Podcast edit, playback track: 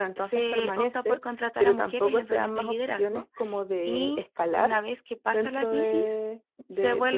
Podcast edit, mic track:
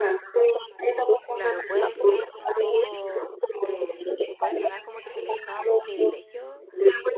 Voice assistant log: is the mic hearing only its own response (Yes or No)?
No